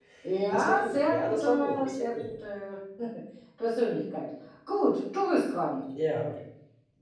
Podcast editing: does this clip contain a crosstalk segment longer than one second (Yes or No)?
Yes